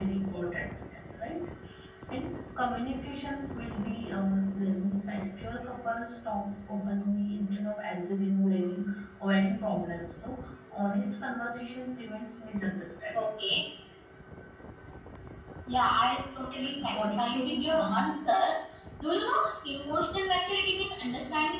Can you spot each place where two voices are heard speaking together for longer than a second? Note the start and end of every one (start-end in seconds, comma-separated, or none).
16.9-18.1